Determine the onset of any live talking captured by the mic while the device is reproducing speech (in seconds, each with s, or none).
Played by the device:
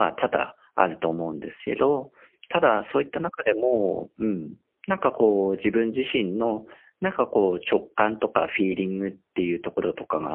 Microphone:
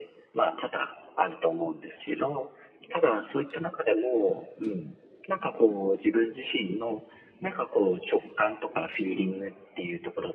none